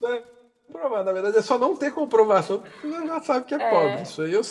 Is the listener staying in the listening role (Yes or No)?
No